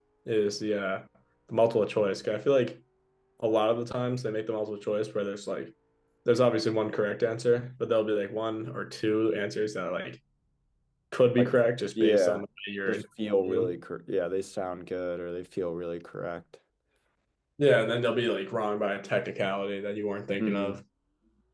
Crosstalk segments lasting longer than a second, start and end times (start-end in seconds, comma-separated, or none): none